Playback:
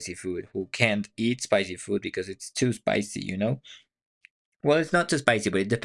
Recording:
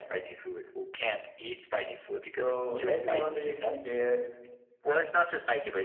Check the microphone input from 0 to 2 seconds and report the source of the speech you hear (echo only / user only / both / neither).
echo only